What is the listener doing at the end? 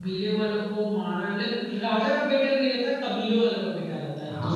taking over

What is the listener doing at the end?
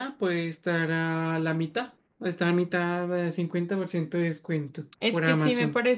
taking over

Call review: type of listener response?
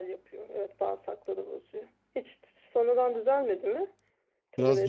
taking over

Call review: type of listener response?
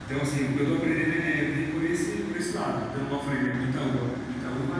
listening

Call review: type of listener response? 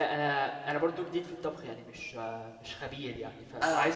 listening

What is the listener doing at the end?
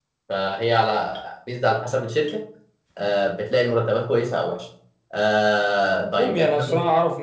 taking over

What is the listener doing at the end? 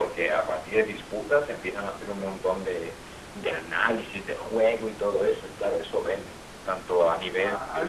taking over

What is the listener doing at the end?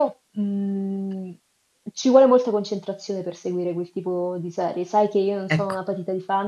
listening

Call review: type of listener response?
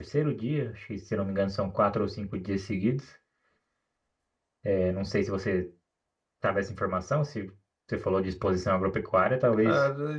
taking over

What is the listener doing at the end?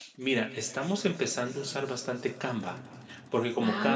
listening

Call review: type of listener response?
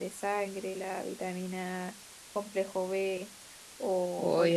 taking over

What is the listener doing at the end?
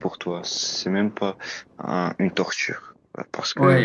taking over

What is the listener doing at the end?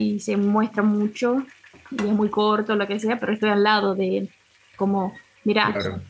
listening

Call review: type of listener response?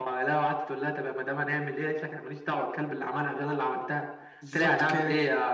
listening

